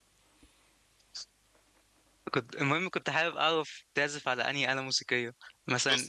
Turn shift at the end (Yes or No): No